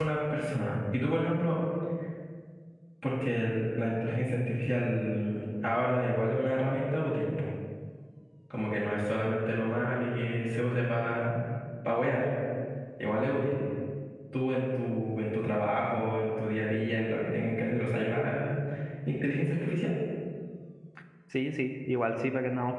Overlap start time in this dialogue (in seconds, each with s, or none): none